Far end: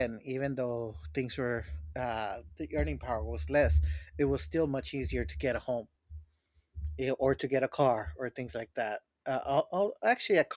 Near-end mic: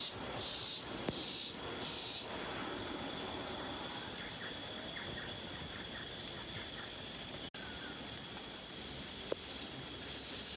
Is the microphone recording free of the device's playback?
Yes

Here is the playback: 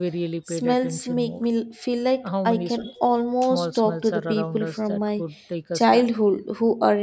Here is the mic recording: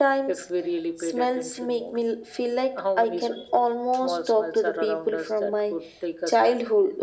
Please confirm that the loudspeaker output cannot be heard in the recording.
No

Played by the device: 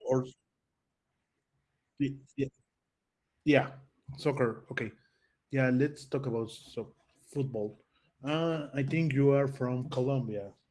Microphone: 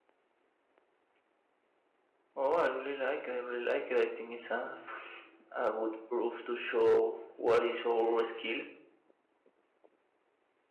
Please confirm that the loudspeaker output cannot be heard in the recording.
Yes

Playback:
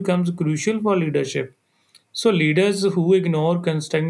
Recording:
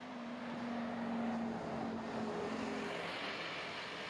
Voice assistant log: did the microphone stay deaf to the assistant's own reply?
Yes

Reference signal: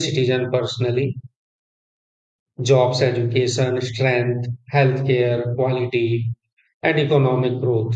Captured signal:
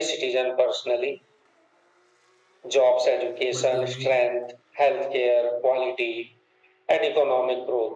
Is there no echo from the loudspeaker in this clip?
No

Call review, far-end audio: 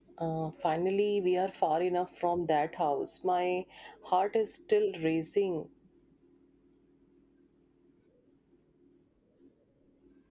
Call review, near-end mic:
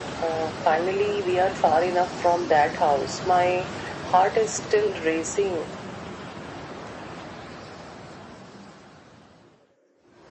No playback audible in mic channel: No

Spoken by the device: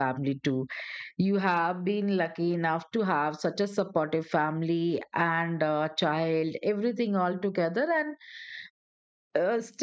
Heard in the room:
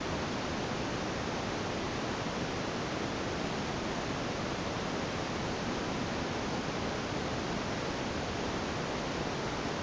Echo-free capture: Yes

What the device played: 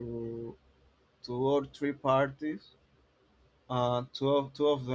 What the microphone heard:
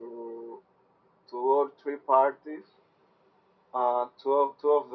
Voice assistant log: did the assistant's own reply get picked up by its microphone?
Yes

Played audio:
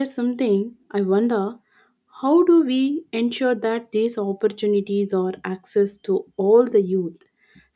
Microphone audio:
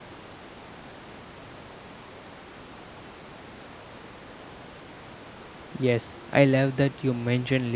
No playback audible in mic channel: Yes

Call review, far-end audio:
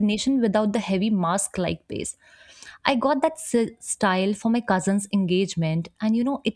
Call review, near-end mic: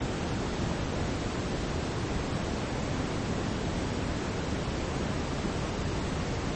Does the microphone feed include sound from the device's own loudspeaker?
No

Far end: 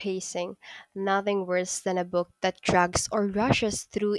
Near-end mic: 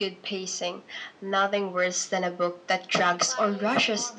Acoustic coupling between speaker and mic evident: Yes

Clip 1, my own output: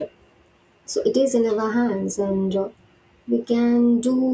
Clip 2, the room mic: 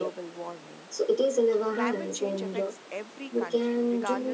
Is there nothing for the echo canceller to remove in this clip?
No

